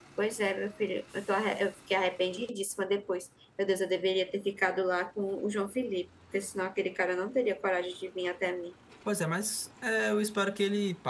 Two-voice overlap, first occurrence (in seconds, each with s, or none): none